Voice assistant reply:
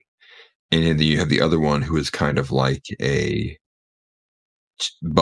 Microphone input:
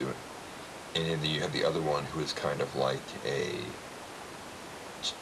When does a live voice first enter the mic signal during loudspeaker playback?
none

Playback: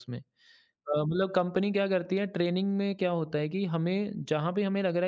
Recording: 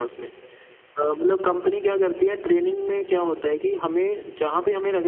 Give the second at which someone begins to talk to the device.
none

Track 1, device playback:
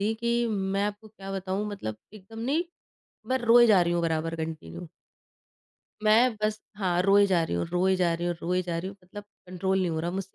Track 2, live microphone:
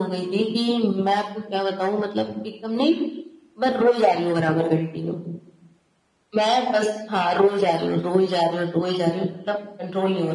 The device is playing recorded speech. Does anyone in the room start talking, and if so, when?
none

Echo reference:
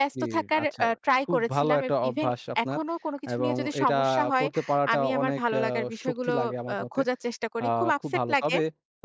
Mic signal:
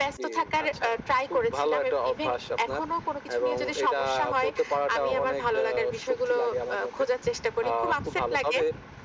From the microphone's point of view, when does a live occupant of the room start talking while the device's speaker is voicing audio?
none

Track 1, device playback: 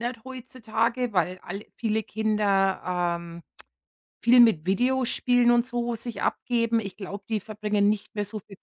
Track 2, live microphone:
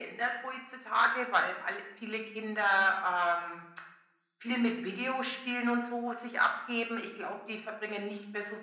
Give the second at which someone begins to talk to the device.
none

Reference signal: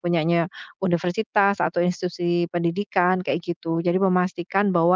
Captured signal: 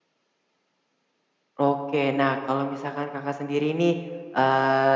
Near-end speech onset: 1.6 s

